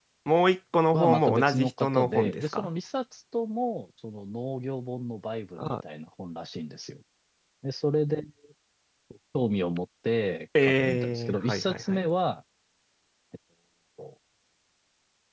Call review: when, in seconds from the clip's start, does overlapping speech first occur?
0.9 s

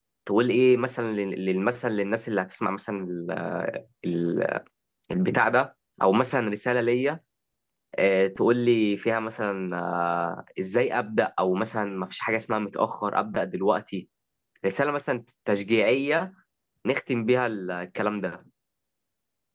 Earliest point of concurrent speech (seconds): none

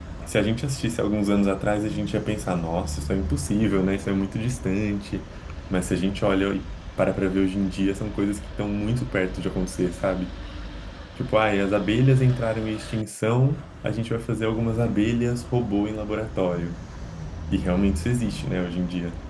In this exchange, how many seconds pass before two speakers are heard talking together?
none

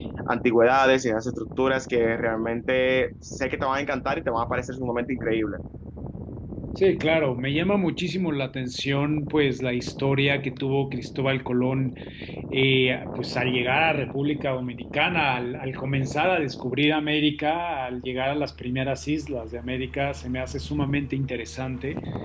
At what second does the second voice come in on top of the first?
none

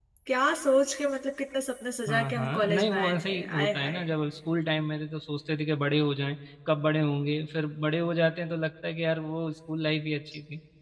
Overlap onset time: 2.1 s

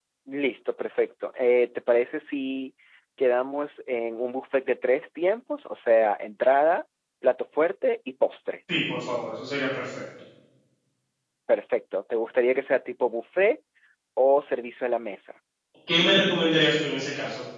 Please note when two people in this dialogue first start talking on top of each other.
none

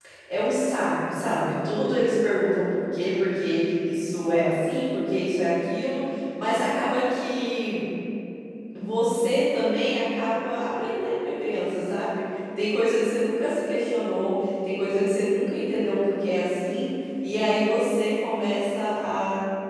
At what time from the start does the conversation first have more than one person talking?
none

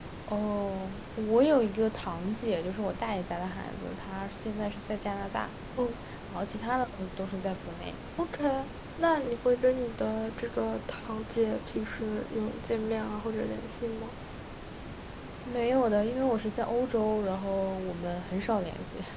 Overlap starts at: none

